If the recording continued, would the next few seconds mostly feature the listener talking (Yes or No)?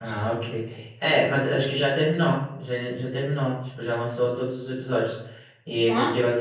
No